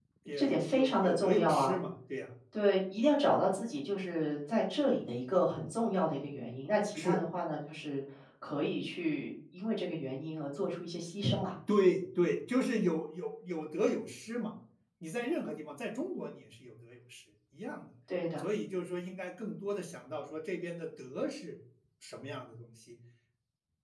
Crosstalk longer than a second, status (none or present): present